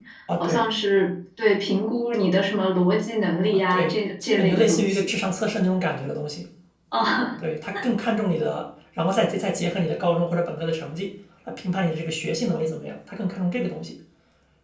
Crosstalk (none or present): present